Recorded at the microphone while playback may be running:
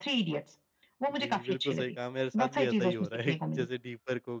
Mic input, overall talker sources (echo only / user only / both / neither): both